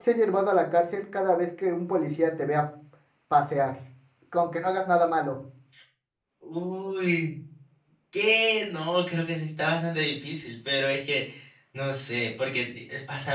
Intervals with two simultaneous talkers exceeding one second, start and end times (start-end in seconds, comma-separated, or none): none